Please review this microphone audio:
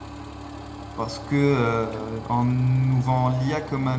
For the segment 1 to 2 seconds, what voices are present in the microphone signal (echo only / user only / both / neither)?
user only